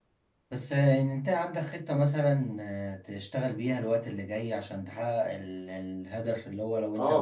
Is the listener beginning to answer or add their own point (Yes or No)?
No